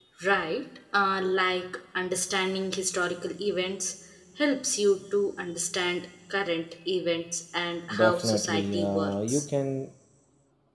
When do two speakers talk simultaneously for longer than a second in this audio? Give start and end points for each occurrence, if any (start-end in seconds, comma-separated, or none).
7.9-9.5